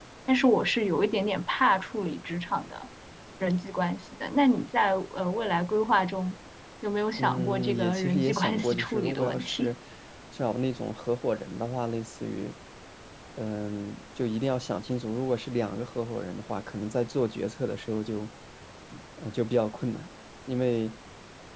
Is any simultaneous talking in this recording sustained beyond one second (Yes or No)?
Yes